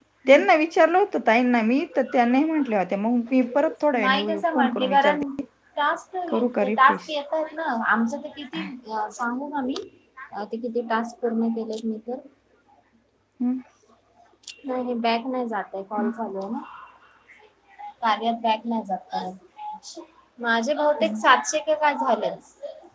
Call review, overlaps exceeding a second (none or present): present